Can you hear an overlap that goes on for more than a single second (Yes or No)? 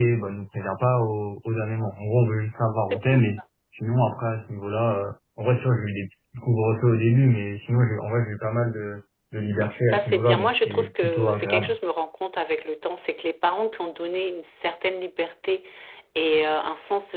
Yes